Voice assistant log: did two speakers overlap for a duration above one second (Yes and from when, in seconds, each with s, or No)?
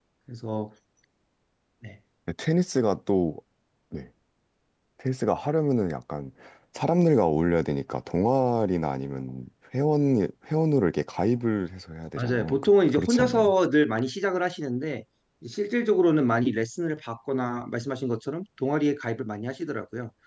Yes, from 12.2 s